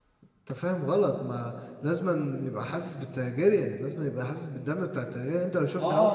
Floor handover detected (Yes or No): Yes